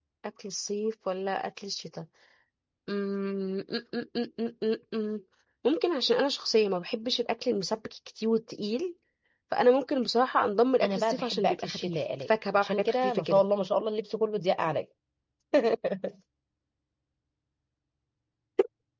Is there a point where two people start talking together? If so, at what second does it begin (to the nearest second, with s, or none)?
11 s